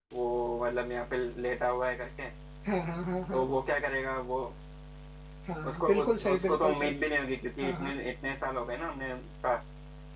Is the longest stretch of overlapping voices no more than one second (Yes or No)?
No